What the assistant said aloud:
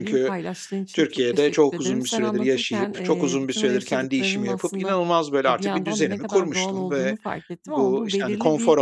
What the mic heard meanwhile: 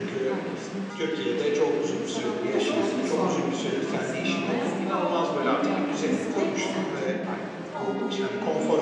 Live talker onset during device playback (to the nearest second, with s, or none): 2 s